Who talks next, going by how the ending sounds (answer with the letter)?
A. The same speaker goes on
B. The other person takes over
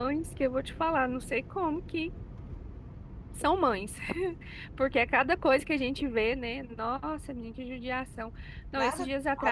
A